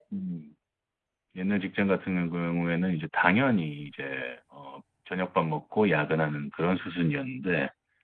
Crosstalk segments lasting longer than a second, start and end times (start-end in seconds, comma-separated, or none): none